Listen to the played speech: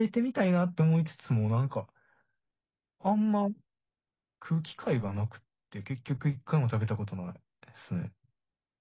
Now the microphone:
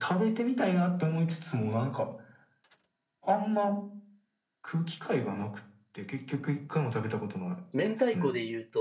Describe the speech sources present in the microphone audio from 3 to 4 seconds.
echo only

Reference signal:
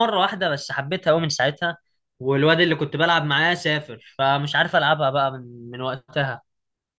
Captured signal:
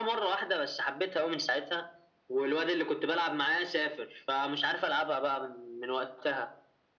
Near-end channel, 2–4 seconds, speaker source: echo only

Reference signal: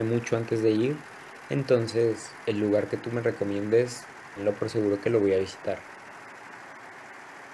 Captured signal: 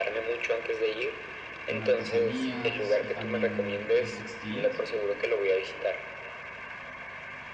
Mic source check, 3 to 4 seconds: both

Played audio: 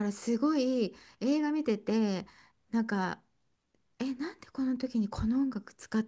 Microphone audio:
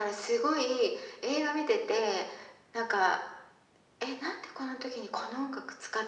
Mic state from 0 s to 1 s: echo only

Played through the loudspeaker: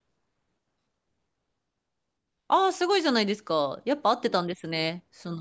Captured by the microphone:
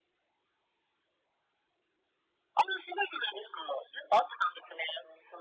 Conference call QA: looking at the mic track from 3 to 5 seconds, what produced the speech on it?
echo only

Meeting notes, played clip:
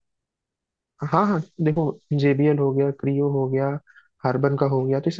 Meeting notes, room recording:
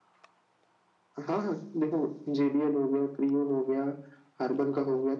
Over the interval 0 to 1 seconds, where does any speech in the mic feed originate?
neither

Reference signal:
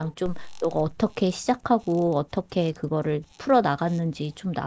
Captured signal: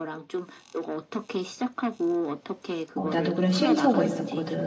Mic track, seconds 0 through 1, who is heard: echo only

